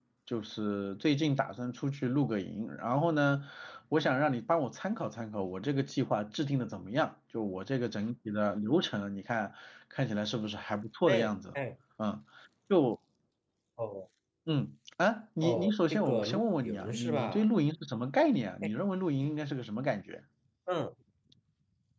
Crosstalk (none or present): present